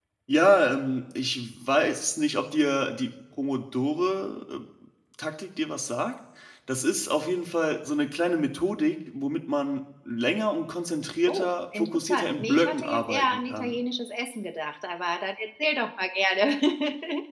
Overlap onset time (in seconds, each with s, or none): 11.3 s